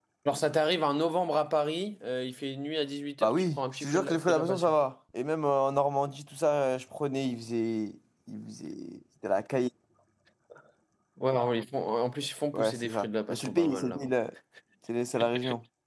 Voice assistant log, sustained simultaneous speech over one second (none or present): present